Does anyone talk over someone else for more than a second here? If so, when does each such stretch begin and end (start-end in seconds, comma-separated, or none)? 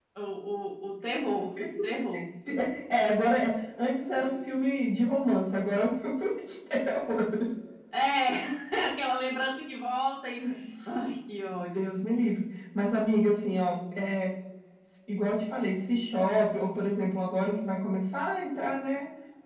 none